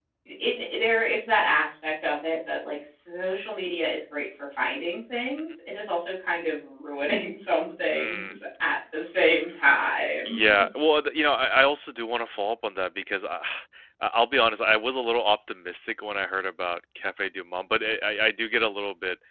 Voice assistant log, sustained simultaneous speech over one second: none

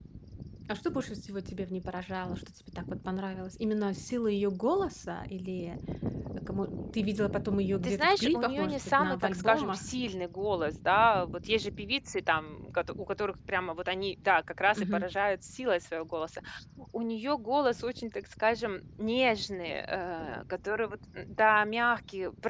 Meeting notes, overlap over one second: present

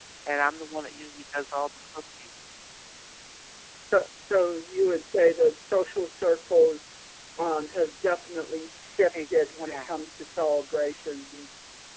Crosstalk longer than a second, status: none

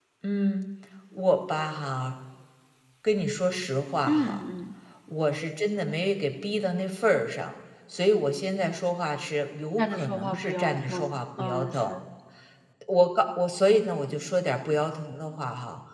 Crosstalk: present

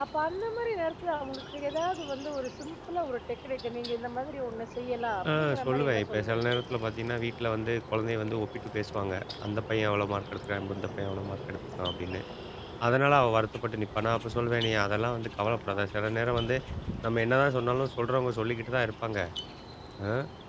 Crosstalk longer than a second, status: present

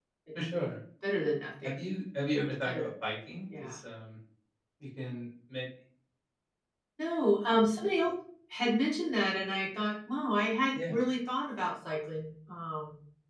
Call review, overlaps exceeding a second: none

